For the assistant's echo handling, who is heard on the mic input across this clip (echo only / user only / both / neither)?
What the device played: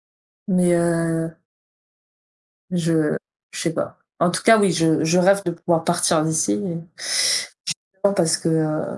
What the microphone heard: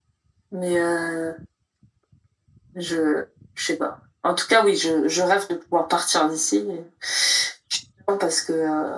echo only